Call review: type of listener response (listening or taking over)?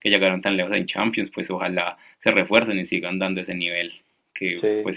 listening